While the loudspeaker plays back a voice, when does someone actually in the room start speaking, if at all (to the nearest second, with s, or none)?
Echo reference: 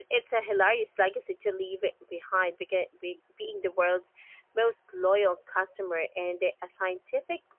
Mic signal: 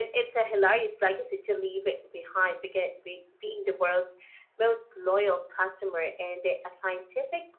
none